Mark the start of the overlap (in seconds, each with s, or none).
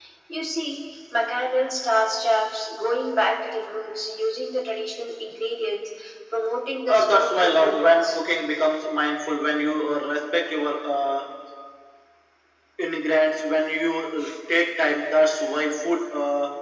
6.9 s